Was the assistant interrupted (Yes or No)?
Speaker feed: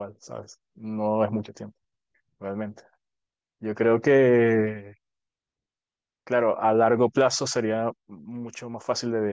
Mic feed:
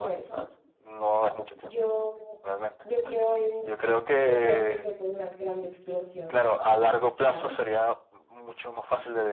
Yes